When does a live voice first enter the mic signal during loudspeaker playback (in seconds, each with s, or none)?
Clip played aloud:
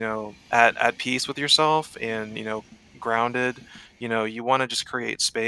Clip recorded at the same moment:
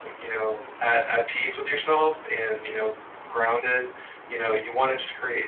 none